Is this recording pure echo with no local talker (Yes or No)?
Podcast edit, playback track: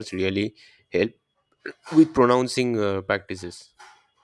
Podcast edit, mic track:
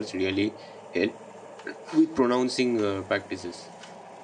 Yes